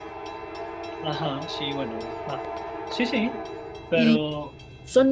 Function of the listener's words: taking over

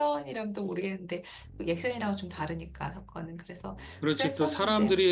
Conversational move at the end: taking over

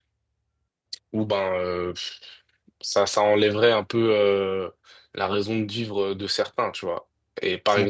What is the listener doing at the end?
listening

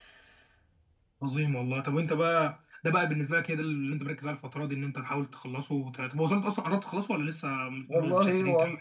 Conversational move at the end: taking over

